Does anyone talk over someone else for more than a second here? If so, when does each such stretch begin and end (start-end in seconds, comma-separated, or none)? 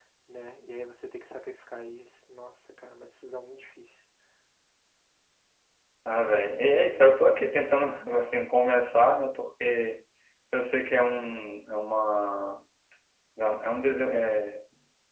none